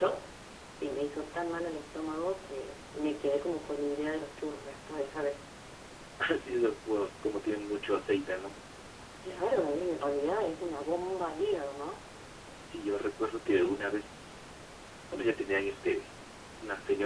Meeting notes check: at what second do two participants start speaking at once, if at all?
none

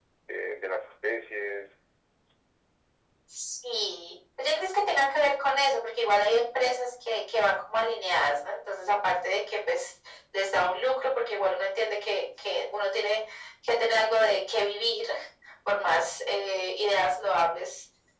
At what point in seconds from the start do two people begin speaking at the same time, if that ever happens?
none

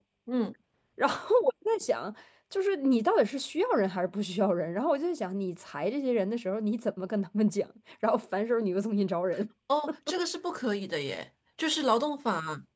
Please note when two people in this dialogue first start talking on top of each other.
none

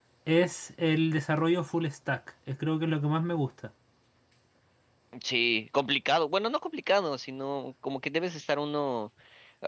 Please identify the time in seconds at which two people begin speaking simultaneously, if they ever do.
none

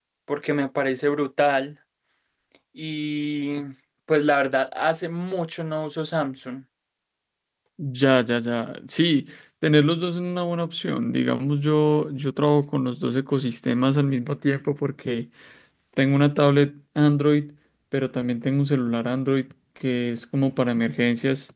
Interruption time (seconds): none

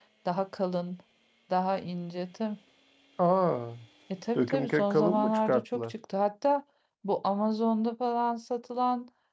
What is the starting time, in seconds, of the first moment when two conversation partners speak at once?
4 s

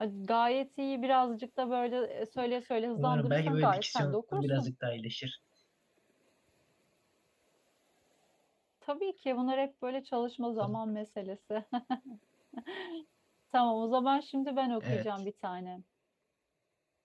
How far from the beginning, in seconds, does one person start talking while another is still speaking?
3 s

